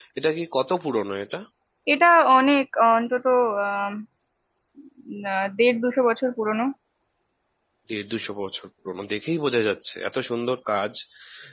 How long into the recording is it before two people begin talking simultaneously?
none

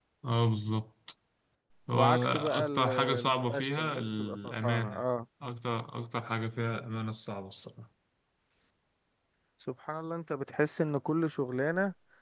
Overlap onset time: 1.9 s

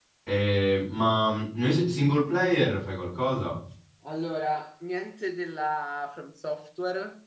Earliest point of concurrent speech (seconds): none

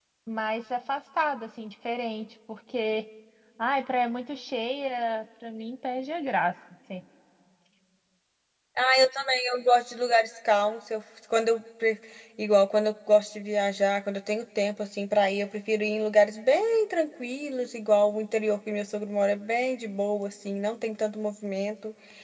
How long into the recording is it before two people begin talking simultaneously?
none

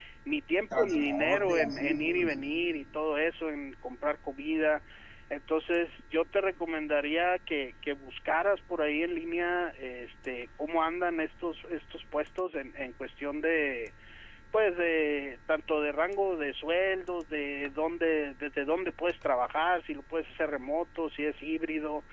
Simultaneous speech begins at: 0.8 s

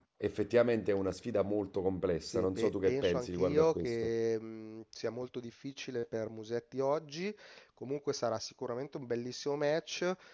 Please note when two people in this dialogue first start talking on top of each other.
2.2 s

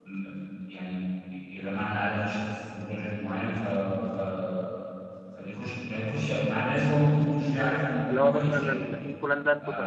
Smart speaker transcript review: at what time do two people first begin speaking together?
7.5 s

